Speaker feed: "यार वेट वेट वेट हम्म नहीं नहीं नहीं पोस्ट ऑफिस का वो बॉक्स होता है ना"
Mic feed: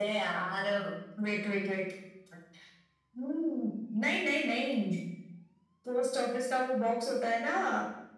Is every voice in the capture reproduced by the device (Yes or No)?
Yes